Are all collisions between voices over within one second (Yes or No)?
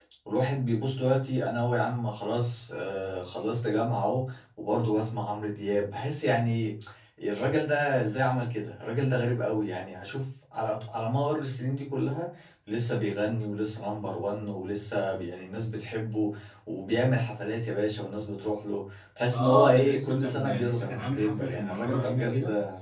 No